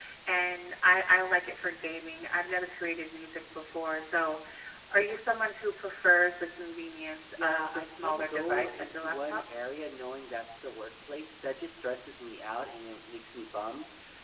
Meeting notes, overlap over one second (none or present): present